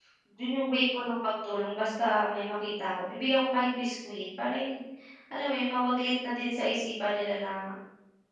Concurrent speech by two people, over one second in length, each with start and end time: none

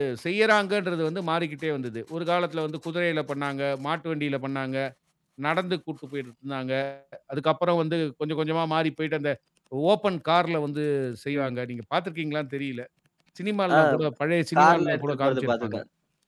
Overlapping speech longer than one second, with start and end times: 14.6-15.8

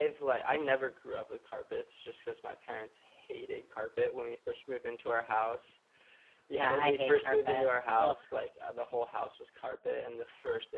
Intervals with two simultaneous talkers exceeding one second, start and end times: 6.5-8.2

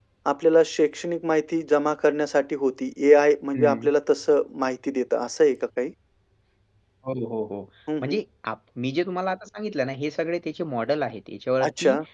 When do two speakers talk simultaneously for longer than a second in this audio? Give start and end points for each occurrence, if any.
none

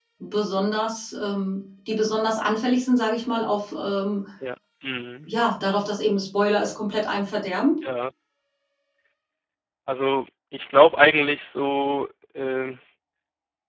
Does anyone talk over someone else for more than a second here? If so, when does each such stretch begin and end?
none

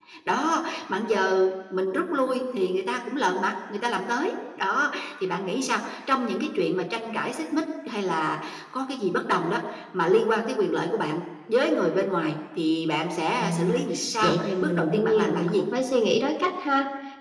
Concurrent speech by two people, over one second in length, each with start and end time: 14.2-15.7

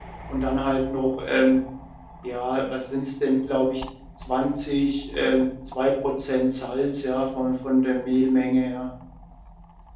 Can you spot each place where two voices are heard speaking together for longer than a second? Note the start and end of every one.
none

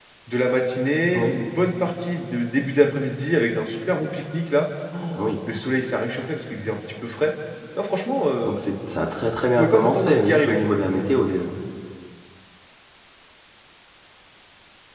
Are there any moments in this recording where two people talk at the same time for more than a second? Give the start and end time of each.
9.3-10.6

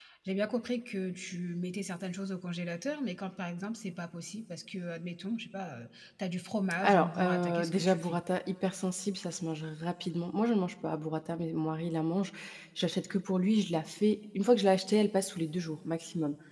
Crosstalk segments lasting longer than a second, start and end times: 6.8-8.2

